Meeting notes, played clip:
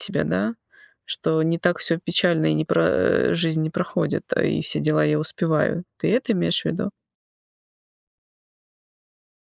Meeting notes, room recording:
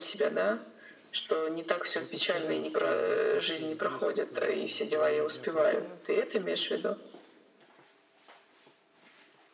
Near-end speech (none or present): present